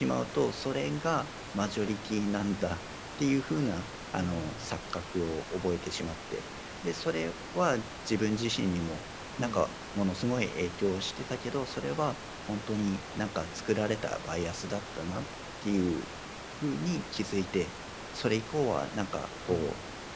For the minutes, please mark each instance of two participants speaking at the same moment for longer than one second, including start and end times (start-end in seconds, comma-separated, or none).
none